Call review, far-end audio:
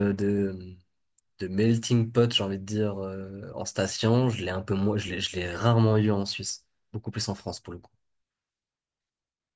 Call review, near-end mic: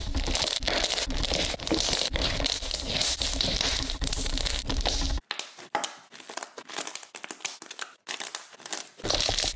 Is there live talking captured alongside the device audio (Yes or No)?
No